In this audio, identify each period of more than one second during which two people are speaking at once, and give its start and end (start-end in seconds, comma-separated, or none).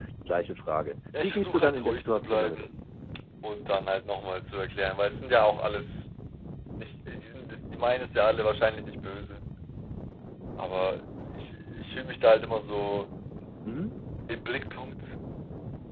1.2-2.8